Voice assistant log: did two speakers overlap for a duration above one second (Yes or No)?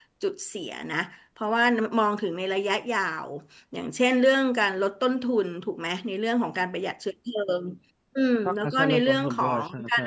Yes